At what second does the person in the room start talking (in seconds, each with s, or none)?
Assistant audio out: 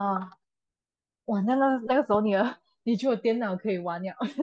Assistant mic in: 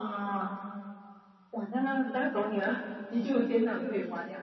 3.1 s